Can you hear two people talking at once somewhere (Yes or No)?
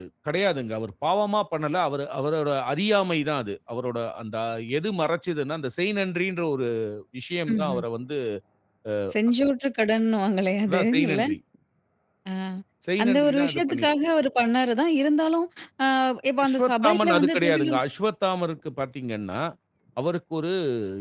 Yes